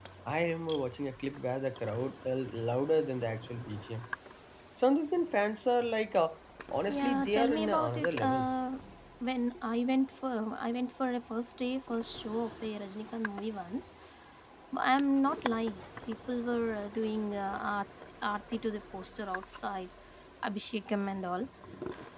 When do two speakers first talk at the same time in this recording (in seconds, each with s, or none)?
6.9 s